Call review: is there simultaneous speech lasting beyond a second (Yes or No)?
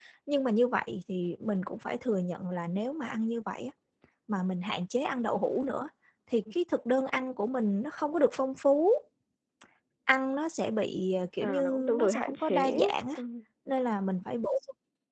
Yes